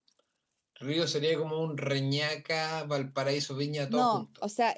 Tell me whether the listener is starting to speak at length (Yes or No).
Yes